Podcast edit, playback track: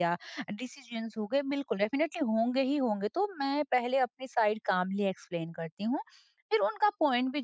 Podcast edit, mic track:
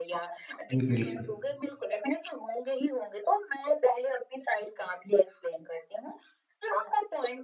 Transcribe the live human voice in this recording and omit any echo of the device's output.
जी, बिल्कुल।

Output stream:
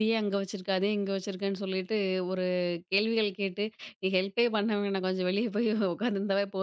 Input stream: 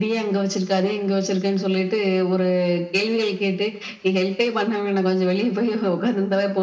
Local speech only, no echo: none

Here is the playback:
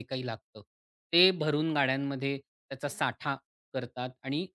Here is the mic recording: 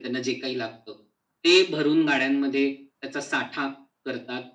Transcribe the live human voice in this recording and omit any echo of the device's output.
none

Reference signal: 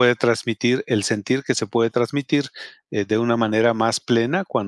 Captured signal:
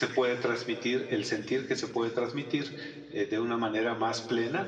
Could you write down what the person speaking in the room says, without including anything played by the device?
none

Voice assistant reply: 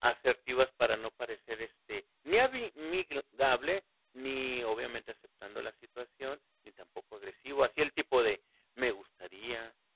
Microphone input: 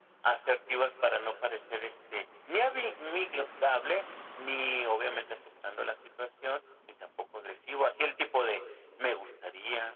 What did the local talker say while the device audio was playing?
none

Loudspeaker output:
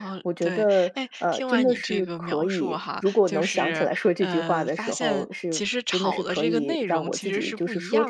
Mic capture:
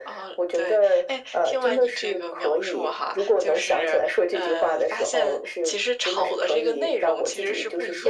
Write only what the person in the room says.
none

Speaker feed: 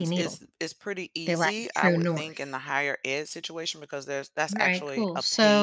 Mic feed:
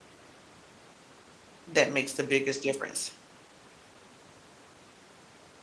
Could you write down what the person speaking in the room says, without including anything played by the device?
that makes the biggest difference.

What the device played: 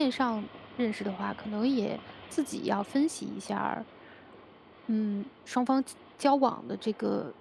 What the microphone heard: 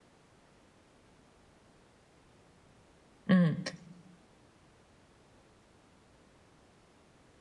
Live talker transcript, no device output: 嗯。

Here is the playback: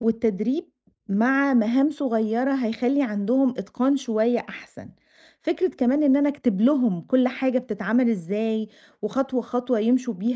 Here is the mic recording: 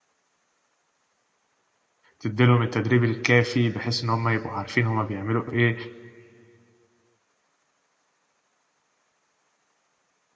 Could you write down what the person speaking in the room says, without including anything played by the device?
تدّي لهم التدريب الكافي بحيث إن هم يبقوا عارفين هم بيعملوا إيه،

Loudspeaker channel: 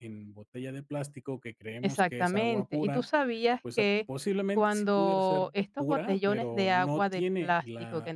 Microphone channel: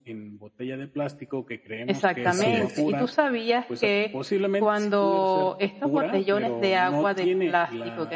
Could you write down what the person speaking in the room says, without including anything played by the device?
así es.

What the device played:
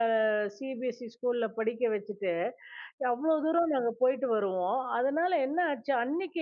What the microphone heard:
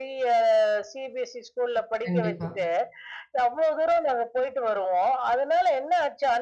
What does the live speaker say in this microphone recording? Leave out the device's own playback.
கண்டிப்பா.

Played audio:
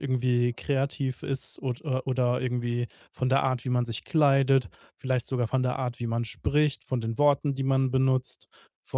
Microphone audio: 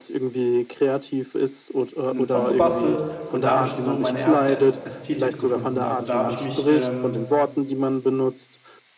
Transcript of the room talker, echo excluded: einen Song gebastelt und da habe ich schon so meine erste Äs Ästhetik gefunden. Also, da habe ich mich ähm,

